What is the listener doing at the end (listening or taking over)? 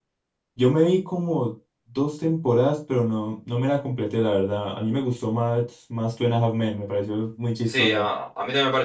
taking over